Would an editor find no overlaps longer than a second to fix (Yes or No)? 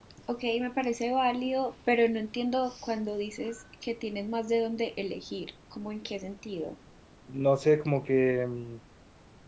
Yes